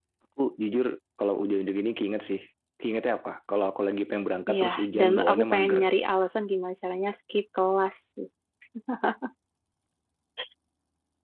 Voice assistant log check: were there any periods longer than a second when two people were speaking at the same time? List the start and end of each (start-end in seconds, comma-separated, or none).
4.5-5.8